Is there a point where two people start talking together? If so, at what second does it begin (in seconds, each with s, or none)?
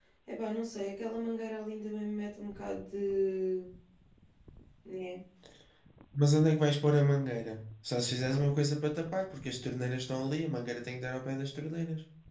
none